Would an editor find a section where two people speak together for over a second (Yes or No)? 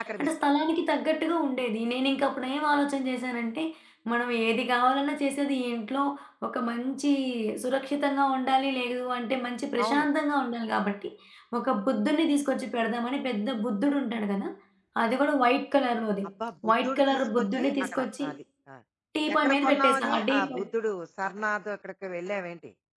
Yes